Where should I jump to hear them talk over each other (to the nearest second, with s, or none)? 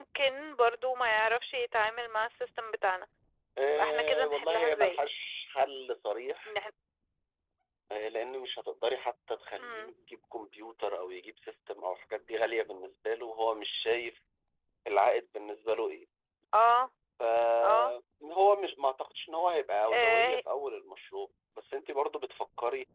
4 s